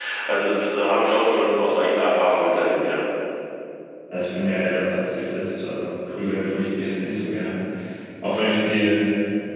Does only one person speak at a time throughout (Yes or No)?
Yes